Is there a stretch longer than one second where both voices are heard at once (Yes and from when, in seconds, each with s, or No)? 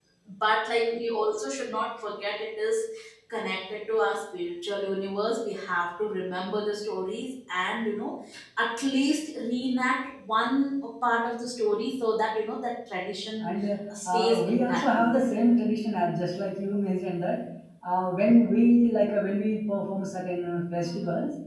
Yes, from 14.0 s